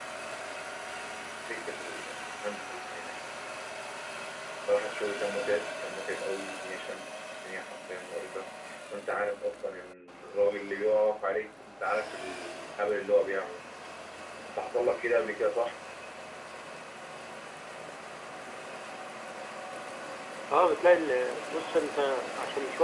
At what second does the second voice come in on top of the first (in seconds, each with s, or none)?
none